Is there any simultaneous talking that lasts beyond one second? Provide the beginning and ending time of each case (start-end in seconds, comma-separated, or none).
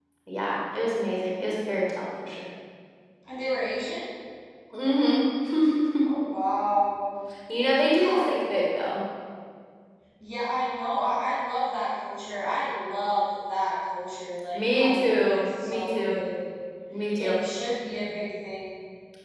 14.5-16.2